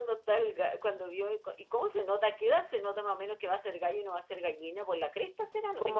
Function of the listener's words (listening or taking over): taking over